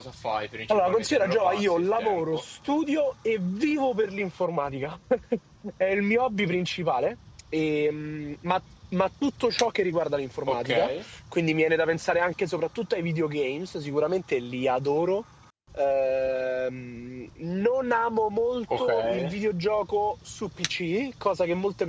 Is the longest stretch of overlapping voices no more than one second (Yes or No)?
No